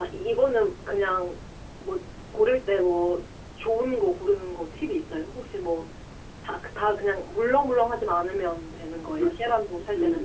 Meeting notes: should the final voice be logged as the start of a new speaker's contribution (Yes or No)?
Yes